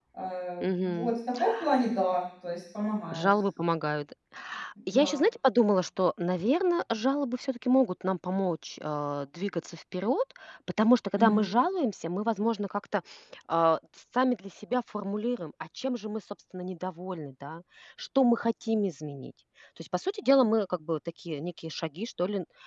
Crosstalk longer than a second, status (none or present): none